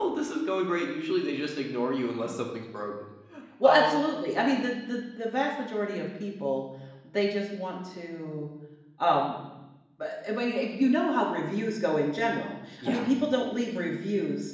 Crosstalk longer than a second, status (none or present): none